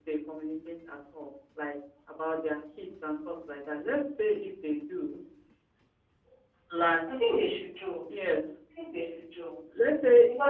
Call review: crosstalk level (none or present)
none